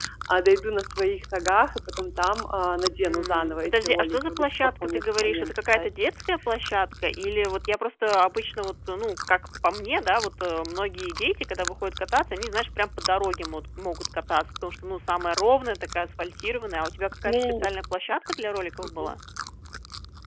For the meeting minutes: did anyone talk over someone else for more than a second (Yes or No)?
Yes